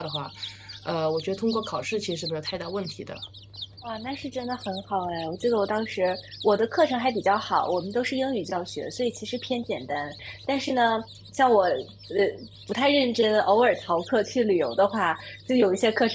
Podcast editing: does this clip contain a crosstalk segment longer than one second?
No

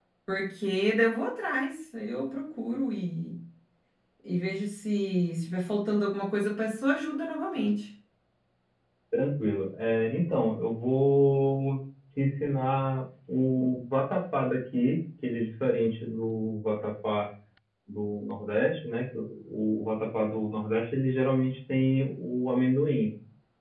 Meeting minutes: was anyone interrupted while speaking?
No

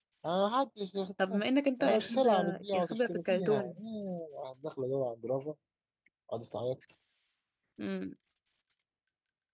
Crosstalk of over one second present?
Yes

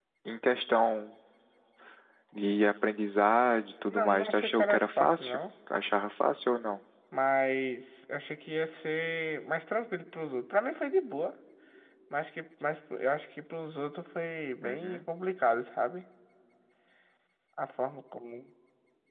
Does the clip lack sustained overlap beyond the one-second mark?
No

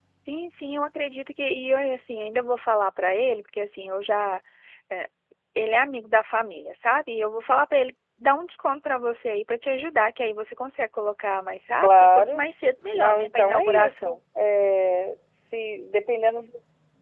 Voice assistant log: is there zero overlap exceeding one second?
No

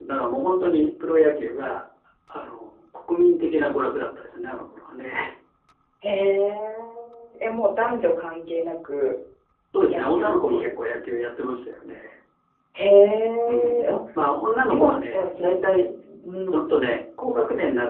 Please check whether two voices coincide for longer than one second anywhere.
Yes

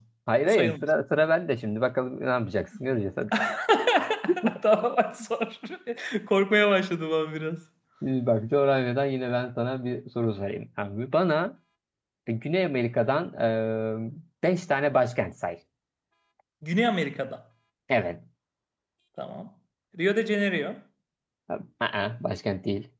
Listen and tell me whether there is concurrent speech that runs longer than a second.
No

